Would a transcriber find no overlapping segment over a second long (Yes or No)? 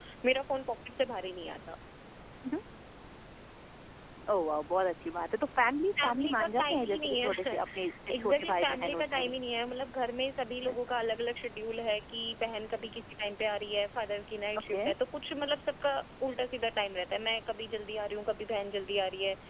No